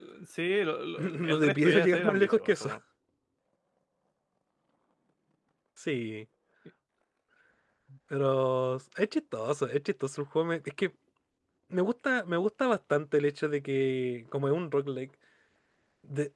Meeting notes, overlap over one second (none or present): present